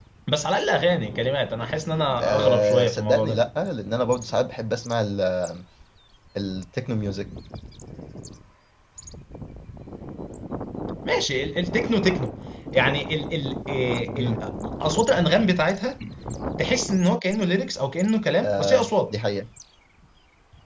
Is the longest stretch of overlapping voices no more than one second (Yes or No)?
No